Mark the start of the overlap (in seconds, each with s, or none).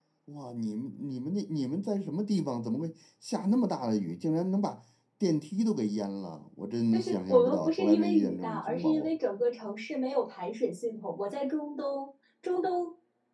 6.9 s